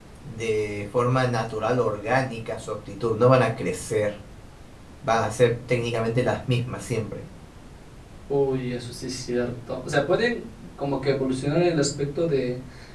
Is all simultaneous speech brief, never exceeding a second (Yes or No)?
Yes